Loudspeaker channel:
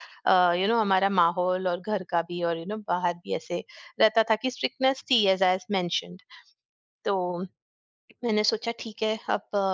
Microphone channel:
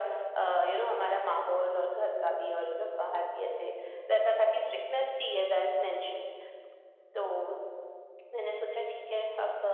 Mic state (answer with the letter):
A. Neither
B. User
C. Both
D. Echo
D